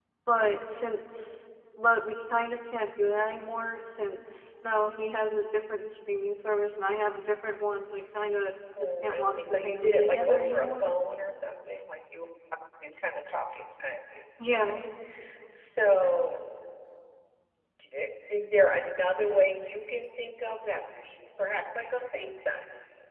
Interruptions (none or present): present